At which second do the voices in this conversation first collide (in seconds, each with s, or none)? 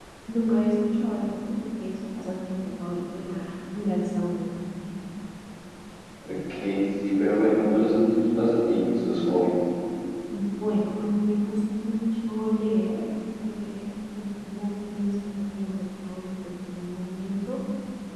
none